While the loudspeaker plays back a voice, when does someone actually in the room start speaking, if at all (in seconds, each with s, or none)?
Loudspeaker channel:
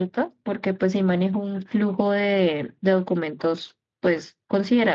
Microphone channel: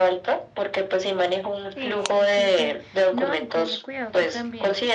1.7 s